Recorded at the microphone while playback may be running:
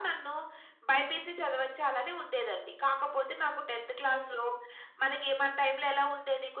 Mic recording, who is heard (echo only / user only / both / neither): echo only